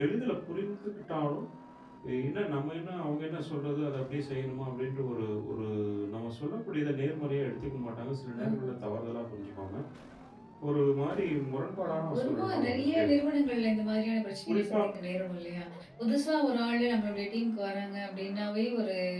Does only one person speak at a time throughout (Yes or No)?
No